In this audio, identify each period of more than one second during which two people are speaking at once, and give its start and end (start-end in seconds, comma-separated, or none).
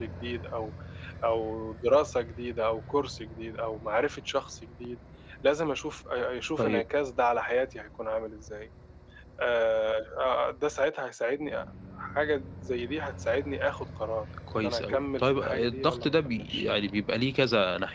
14.6-16.6